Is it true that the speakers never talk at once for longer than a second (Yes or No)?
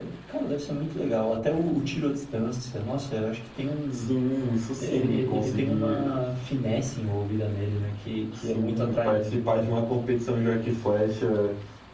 No